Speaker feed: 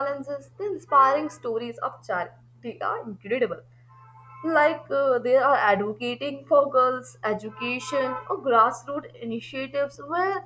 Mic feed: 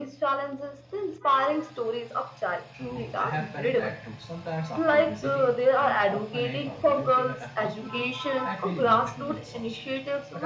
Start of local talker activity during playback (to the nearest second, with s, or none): 3 s